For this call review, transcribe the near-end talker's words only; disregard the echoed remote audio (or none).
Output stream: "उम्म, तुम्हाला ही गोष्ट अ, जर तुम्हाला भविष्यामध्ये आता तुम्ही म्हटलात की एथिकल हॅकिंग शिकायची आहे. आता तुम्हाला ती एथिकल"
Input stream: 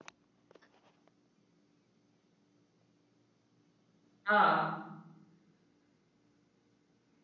हां.